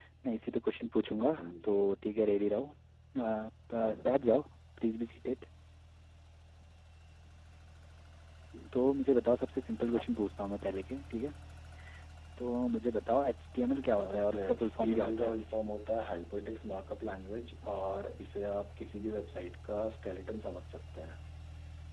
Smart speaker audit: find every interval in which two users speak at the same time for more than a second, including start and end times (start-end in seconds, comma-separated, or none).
13.9-15.3